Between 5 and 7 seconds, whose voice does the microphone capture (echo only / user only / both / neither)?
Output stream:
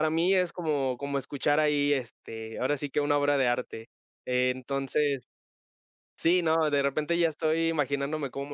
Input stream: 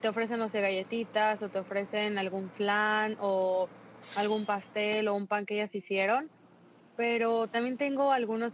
user only